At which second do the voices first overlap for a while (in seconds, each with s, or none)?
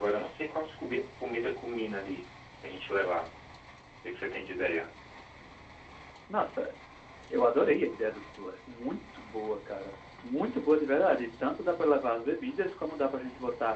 none